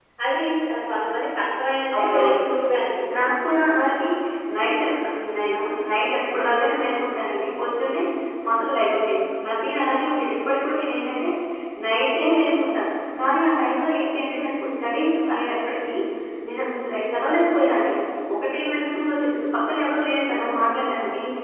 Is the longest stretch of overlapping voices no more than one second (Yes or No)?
Yes